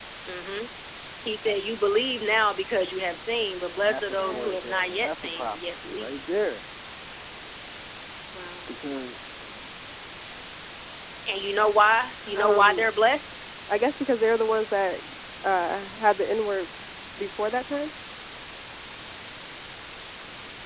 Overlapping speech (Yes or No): Yes